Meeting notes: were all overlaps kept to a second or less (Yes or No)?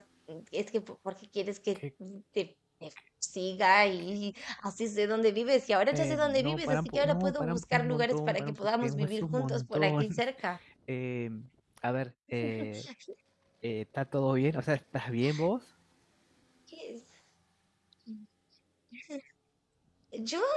No